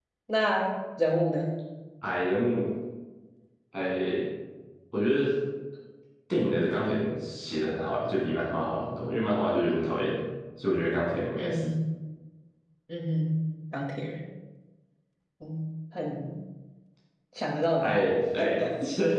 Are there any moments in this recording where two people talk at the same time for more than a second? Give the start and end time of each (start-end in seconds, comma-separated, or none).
none